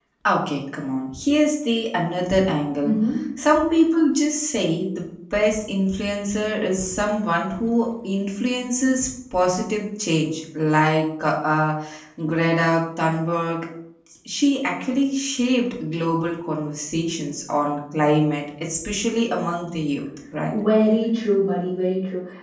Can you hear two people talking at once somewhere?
No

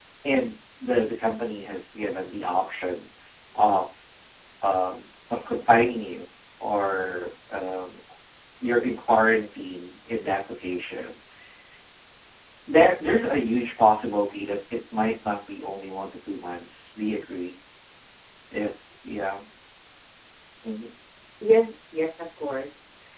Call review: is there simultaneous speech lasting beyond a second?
No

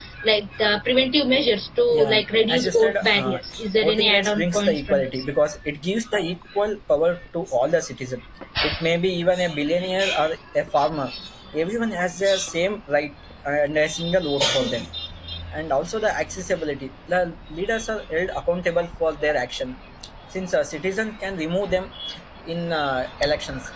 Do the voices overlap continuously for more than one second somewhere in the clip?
Yes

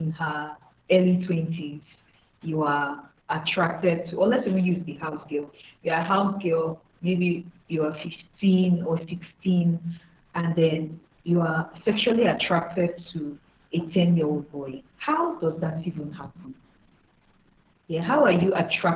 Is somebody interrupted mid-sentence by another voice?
No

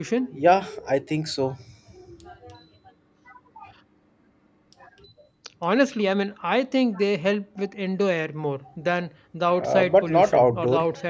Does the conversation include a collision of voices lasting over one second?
Yes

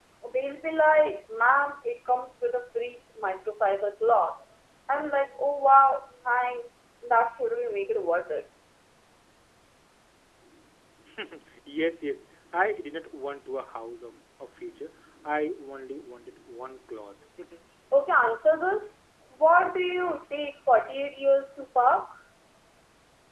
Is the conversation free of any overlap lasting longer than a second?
Yes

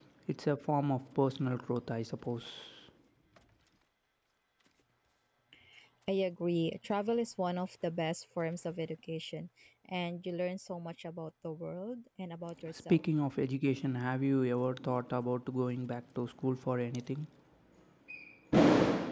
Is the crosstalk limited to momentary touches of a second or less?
Yes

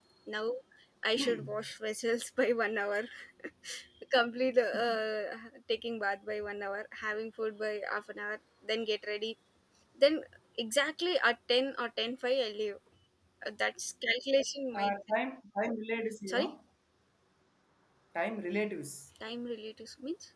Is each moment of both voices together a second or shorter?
Yes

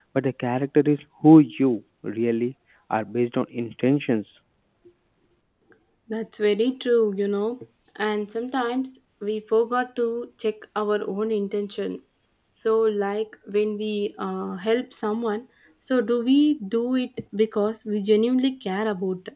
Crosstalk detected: No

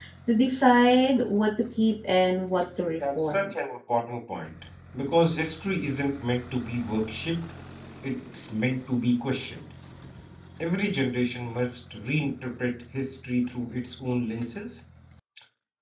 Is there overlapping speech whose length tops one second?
No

